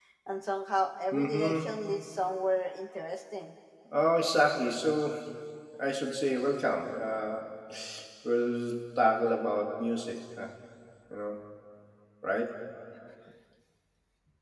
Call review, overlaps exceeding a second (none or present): none